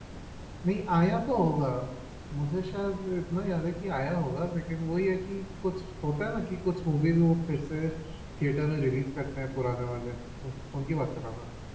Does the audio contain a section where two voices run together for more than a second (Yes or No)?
No